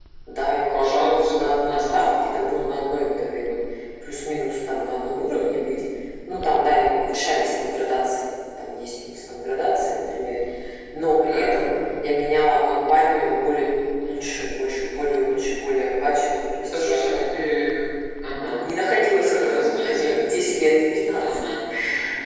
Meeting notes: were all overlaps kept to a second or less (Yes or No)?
No